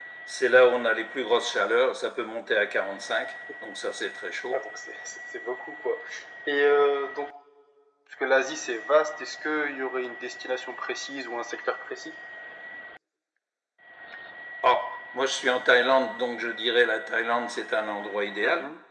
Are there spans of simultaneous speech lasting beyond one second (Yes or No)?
No